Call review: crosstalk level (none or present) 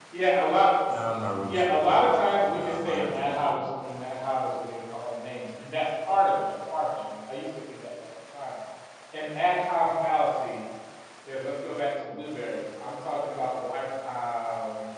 present